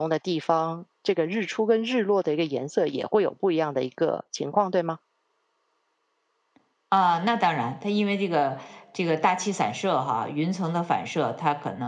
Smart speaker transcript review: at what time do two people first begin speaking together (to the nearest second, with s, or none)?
none